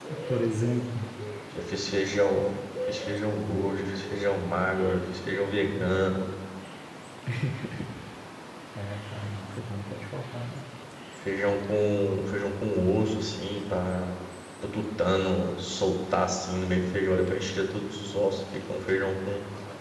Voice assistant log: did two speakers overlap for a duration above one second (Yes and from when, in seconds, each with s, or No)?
No